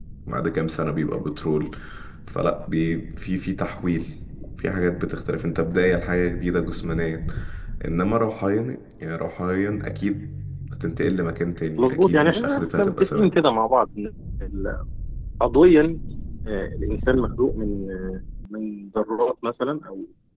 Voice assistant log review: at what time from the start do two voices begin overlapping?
11.8 s

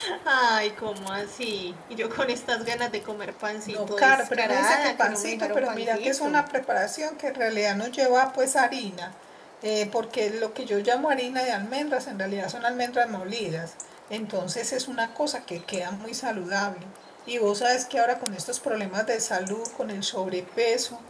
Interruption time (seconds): 3.6 s

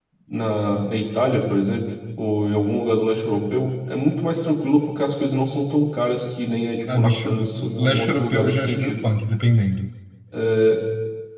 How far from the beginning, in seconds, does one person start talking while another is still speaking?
6.9 s

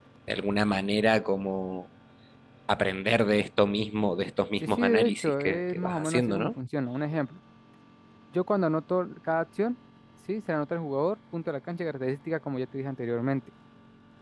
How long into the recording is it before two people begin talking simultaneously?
4.6 s

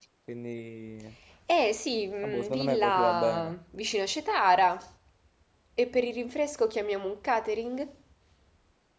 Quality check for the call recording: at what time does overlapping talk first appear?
2.2 s

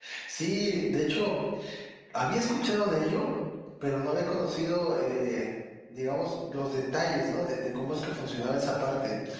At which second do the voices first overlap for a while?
none

